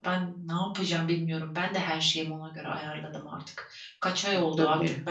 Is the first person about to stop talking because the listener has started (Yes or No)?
No